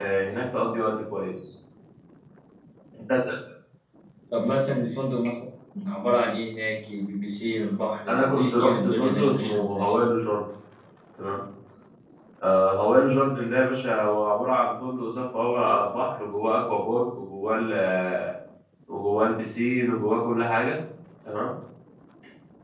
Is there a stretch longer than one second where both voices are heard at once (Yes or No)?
Yes